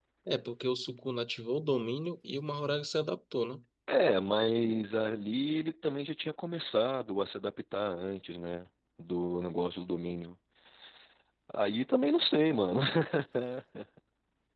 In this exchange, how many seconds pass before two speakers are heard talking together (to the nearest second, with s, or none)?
none